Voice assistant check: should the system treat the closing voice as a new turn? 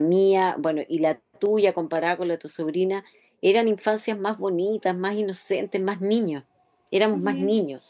Yes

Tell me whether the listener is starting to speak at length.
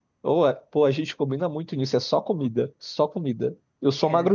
No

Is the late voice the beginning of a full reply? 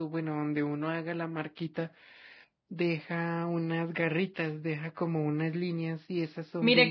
Yes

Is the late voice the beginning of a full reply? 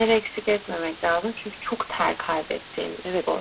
Yes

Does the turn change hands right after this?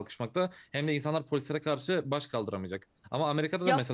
No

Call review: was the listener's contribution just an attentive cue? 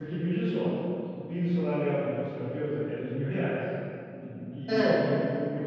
Yes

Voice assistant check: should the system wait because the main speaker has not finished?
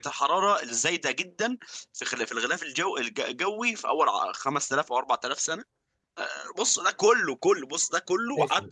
No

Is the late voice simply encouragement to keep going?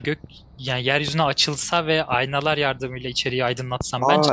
No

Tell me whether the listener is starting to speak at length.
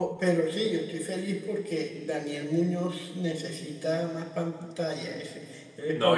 Yes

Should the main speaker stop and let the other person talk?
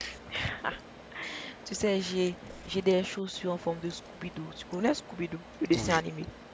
Yes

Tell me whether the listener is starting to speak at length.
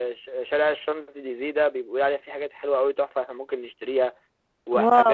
No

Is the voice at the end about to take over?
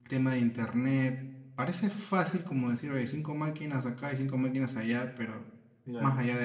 No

